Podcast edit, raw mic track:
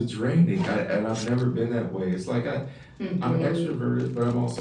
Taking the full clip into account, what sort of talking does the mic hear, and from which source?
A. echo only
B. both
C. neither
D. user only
B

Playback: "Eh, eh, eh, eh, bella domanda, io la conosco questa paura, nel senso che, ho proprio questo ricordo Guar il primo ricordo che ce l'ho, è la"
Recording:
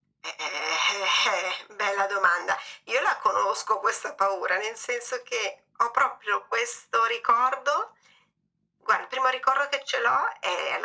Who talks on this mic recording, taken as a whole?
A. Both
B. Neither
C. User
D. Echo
D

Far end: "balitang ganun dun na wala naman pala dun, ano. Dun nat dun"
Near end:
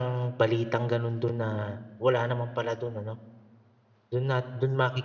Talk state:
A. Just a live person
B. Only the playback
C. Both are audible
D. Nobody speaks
B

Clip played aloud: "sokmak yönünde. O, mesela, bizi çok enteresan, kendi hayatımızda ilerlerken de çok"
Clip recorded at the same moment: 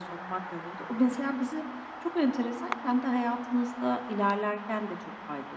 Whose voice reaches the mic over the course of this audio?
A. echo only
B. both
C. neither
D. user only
A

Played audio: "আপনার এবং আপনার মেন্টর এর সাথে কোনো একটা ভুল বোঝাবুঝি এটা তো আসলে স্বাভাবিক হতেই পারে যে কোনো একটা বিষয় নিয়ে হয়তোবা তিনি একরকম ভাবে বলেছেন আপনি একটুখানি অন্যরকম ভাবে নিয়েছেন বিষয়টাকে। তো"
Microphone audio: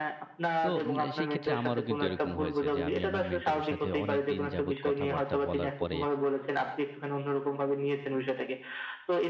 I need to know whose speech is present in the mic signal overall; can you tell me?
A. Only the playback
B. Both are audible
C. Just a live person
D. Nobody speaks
B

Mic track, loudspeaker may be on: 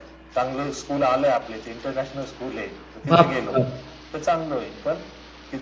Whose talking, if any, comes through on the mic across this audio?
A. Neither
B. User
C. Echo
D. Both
D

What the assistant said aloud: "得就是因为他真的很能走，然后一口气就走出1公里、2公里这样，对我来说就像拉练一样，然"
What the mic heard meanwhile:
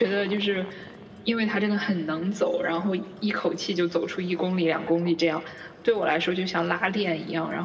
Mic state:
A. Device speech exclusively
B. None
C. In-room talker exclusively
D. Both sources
A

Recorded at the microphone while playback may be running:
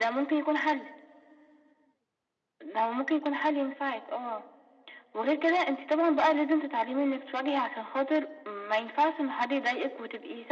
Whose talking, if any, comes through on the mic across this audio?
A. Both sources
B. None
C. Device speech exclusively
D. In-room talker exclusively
C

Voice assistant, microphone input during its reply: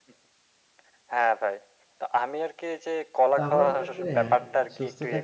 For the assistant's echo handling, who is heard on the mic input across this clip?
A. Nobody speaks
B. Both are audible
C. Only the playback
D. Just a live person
B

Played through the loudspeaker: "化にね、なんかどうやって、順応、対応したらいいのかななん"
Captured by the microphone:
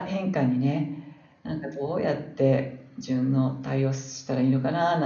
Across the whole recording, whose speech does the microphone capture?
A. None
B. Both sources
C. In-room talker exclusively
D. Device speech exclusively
D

